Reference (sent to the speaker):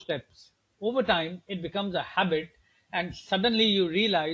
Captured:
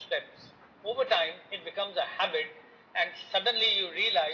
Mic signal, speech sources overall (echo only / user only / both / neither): echo only